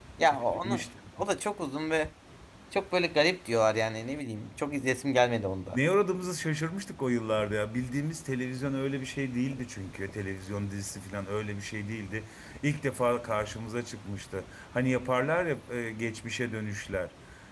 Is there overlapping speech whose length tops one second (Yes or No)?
No